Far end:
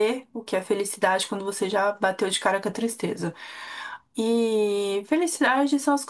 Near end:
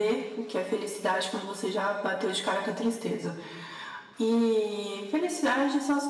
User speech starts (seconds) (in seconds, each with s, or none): none